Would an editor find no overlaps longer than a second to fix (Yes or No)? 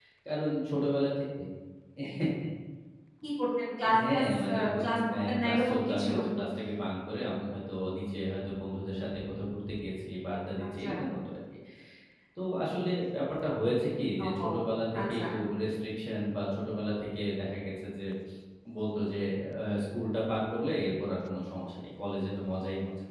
No